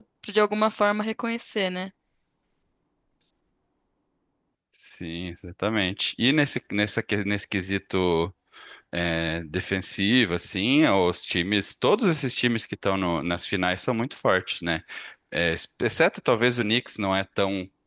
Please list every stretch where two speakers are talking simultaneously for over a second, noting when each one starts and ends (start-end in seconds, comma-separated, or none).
none